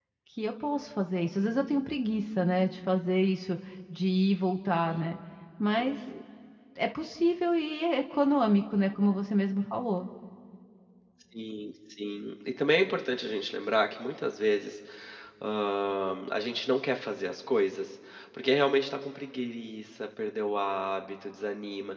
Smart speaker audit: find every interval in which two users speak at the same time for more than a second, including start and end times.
none

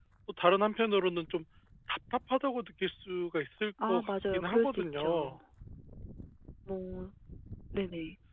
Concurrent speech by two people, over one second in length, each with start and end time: 3.9-5.4

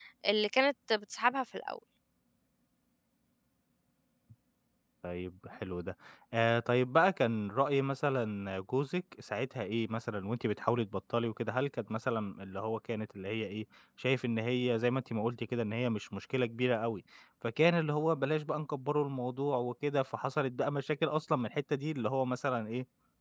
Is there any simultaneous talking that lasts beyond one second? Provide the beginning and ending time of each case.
none

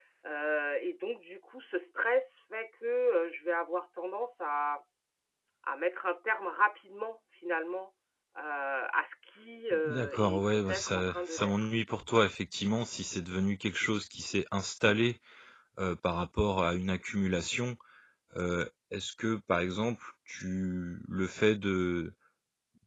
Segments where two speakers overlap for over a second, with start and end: 9.9-11.5

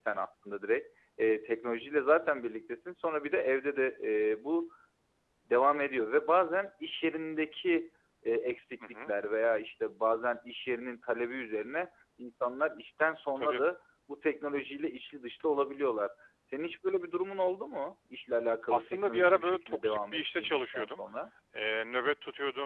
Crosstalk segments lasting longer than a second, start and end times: 18.7-21.0

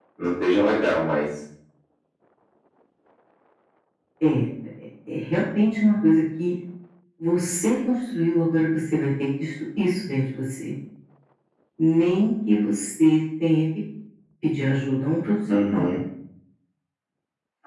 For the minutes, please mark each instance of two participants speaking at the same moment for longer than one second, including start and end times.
none

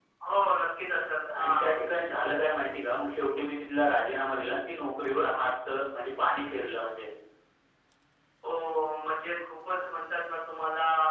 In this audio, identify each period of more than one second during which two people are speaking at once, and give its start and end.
none

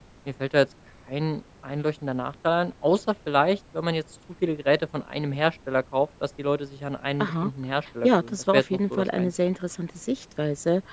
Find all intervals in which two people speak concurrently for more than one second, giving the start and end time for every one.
8.0-9.3

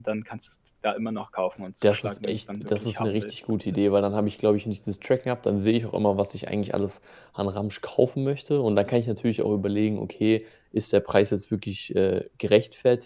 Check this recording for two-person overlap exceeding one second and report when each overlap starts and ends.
1.8-3.4

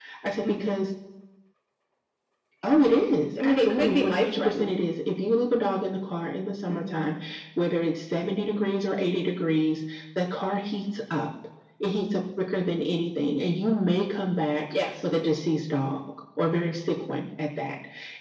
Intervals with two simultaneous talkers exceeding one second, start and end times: 3.4-4.8

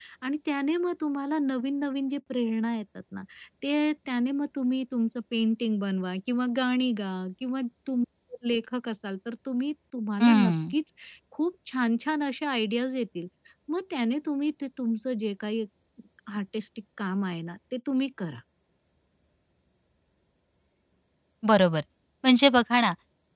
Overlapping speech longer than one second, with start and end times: none

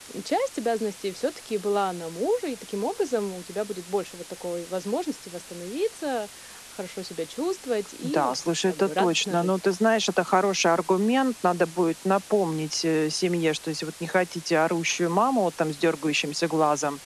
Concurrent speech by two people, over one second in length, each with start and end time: 8.0-9.6

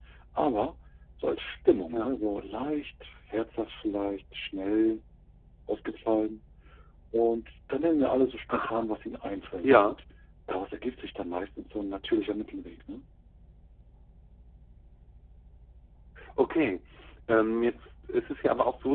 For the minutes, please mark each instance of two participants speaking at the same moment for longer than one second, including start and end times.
none

